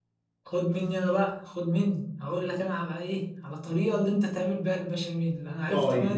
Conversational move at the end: taking over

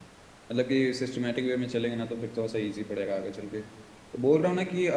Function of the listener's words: listening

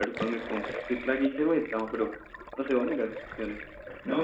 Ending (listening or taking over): taking over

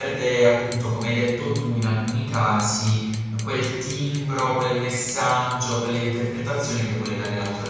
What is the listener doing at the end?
taking over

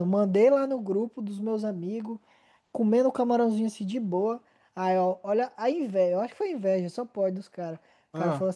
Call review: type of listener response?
listening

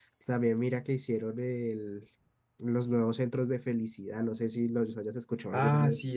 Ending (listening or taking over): taking over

